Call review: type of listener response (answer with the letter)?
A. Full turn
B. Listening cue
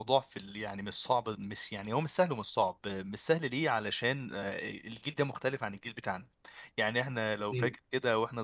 B